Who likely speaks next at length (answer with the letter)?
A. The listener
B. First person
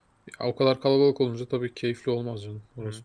A